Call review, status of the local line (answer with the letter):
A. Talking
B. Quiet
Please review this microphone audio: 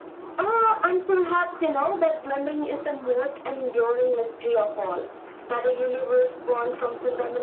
B